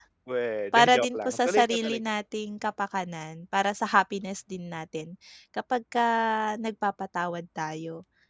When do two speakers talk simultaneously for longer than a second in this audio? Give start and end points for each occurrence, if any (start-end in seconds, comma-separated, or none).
0.7-2.0